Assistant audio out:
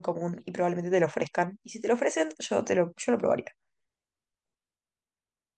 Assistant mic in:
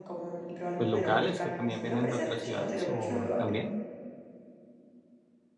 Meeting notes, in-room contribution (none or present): present